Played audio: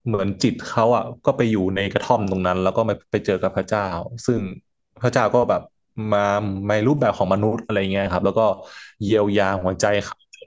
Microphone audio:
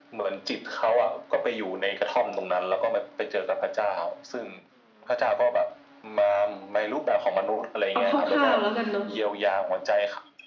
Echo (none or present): present